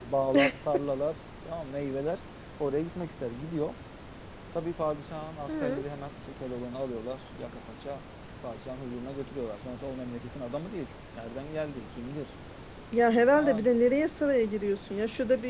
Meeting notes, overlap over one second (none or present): none